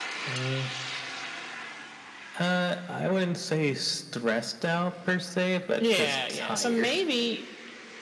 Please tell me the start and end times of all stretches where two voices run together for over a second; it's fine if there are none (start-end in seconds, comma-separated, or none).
5.8-7.0